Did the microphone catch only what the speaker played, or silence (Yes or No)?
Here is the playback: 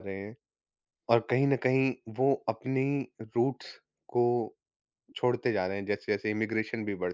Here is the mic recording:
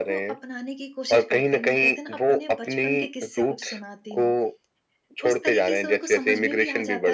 No